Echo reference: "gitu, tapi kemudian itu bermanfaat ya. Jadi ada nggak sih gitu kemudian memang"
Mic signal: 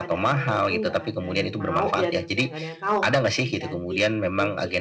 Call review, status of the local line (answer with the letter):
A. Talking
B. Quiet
A